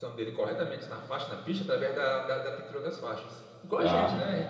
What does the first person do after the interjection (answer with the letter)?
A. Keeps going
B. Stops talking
B